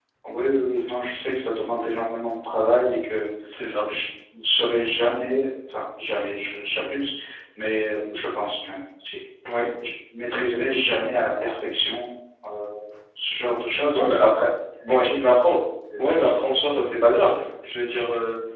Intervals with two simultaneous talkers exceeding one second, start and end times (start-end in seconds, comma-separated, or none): none